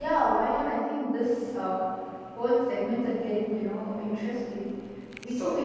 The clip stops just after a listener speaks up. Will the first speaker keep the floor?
Yes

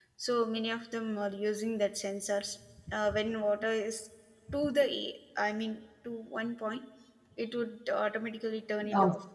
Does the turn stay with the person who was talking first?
No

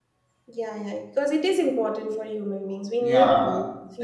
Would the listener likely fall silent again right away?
No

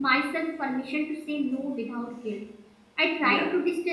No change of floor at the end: Yes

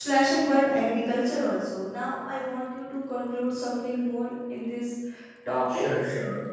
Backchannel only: No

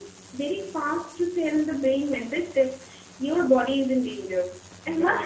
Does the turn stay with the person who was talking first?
Yes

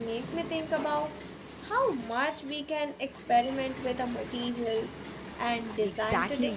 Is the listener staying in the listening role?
No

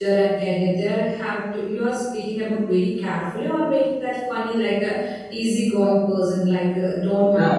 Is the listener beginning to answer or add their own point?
No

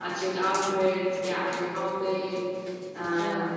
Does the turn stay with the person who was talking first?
Yes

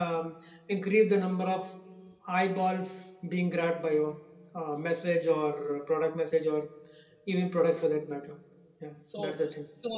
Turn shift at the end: Yes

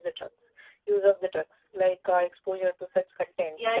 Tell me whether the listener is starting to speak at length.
Yes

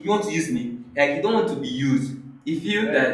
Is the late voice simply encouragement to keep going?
No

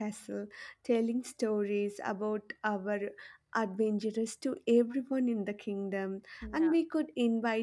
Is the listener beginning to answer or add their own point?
No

